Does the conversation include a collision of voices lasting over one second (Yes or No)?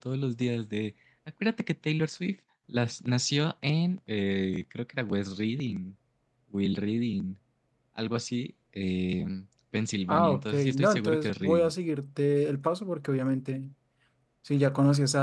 Yes